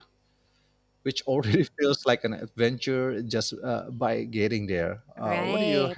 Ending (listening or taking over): taking over